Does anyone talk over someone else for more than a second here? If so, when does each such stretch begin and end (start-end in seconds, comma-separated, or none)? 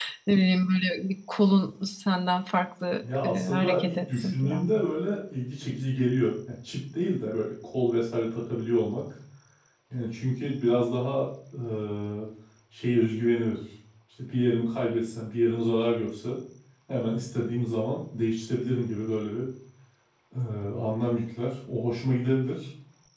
3.2-4.7